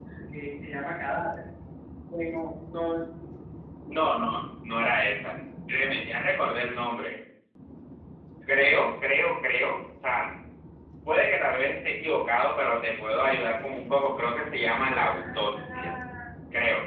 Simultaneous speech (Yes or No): Yes